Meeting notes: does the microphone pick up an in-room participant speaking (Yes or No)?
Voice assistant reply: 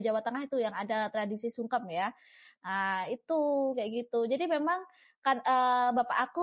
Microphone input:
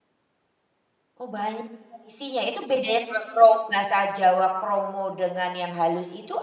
Yes